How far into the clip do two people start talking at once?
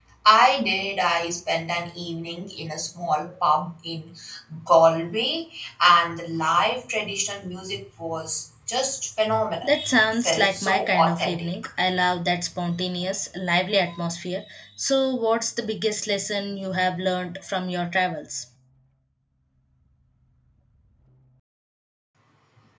9.6 s

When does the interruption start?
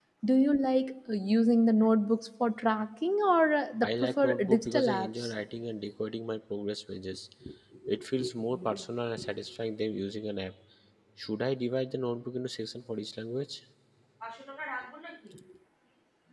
3.8 s

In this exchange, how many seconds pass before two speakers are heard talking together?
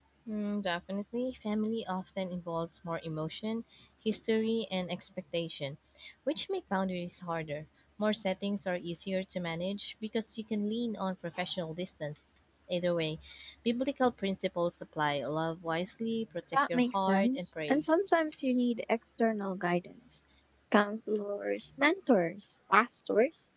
16.5 s

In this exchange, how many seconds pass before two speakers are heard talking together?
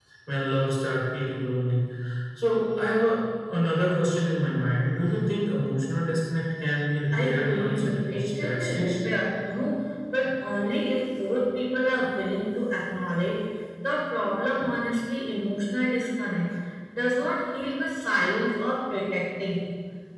7.1 s

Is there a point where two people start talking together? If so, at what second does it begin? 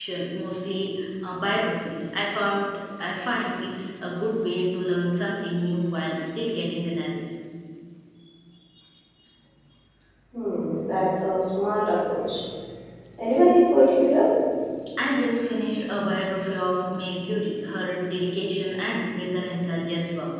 none

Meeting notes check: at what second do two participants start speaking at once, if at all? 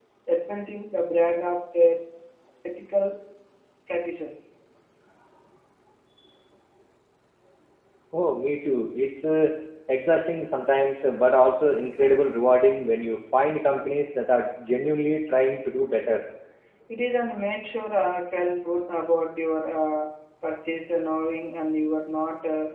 none

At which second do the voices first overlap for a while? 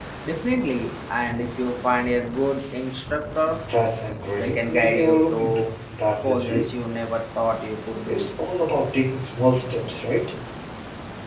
4.4 s

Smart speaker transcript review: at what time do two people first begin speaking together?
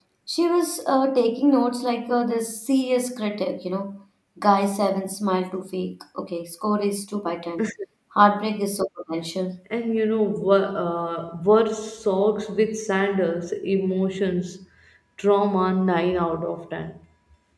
none

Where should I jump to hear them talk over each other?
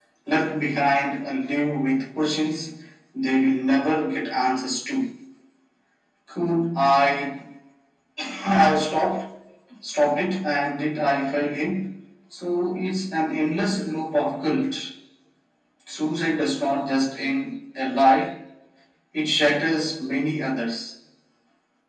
none

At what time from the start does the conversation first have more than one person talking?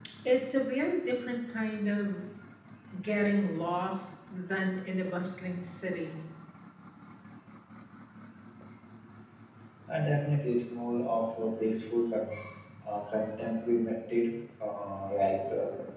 none

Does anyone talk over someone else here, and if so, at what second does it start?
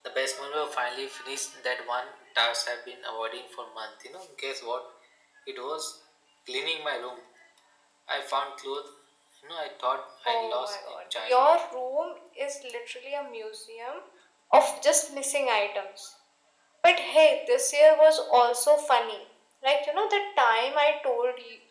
10.2 s

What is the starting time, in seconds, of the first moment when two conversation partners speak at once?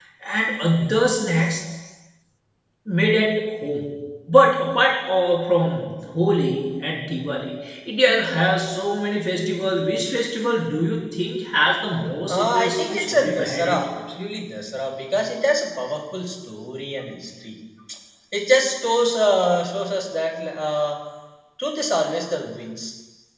12.3 s

